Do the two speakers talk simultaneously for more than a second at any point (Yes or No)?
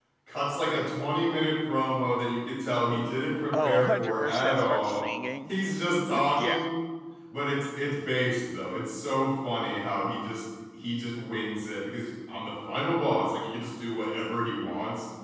Yes